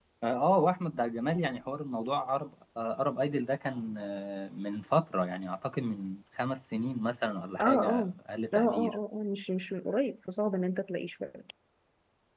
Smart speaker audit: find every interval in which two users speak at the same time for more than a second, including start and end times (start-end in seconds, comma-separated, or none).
none